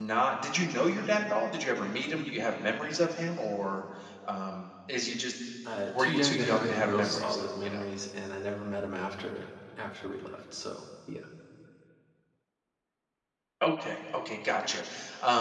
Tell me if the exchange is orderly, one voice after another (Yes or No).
No